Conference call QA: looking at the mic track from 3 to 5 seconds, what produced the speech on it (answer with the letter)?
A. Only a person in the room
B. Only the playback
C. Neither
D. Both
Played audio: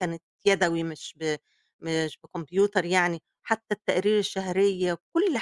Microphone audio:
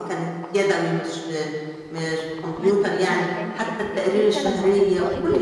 D